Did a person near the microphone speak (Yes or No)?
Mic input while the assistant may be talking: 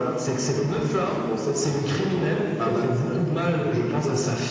No